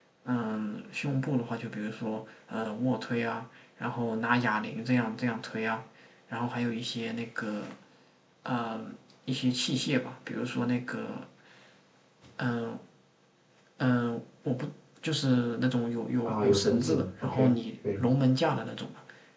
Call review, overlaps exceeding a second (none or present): present